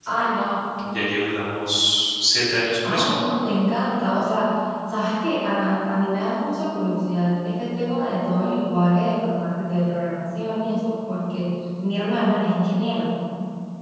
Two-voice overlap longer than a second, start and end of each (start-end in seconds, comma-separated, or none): none